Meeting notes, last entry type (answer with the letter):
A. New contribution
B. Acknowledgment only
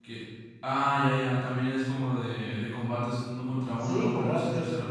A